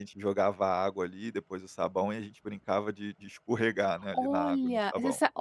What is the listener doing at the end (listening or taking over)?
taking over